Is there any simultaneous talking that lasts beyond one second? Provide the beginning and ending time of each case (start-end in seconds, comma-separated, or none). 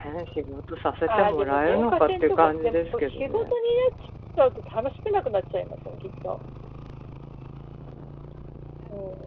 1.1-3.6